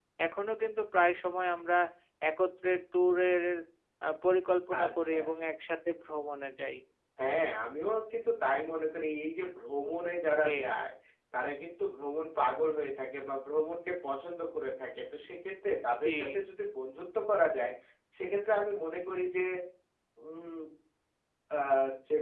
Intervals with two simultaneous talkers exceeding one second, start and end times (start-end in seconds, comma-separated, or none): none